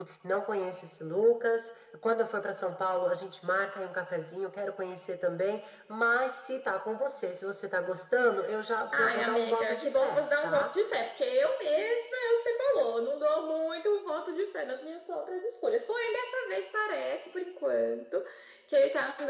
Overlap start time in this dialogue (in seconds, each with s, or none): 8.9 s